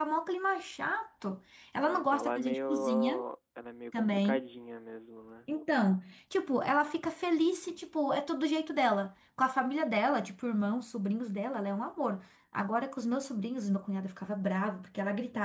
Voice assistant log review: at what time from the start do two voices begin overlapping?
1.8 s

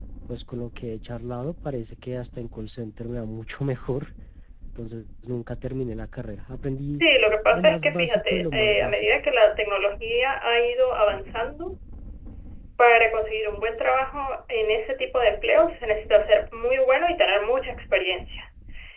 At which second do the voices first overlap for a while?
7.5 s

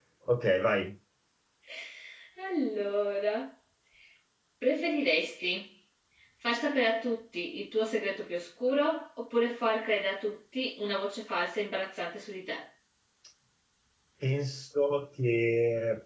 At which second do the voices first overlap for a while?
none

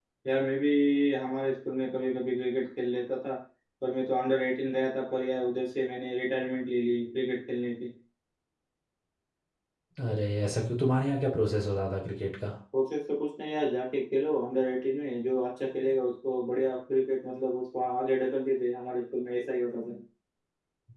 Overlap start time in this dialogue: none

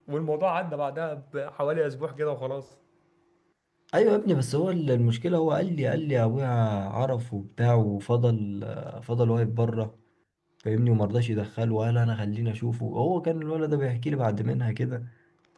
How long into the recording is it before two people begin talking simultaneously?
none

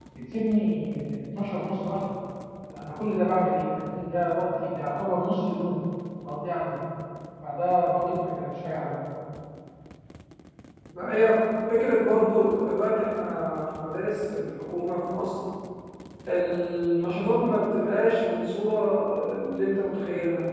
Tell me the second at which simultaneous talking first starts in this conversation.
none

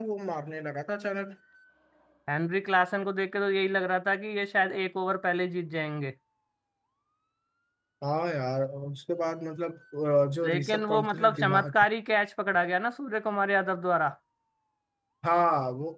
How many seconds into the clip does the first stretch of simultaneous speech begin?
10.4 s

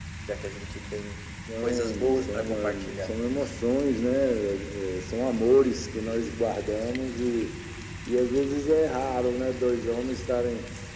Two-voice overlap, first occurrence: 1.6 s

